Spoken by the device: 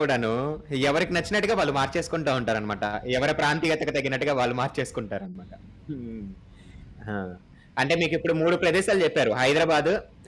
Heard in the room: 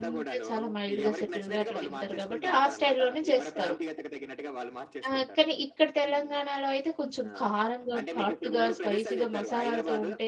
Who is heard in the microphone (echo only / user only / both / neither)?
both